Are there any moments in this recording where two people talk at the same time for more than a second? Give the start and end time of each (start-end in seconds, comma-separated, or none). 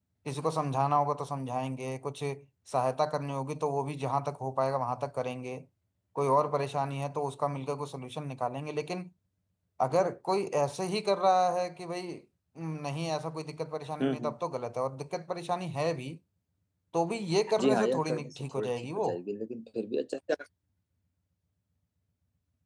17.6-19.1